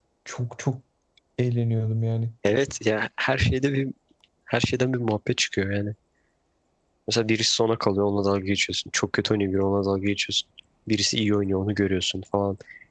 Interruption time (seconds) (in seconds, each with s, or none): none